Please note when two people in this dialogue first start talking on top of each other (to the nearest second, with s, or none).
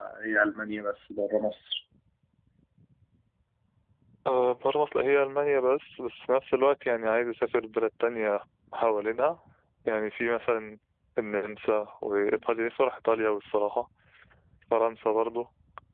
none